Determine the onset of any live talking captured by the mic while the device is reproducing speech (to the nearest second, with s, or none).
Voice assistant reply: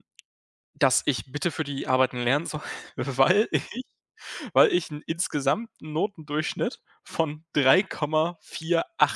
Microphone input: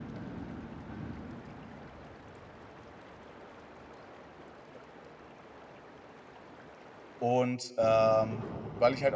7 s